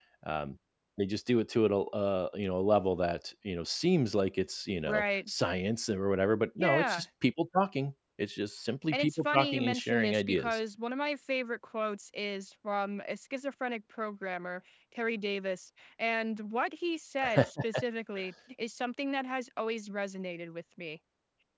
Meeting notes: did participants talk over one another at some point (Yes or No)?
Yes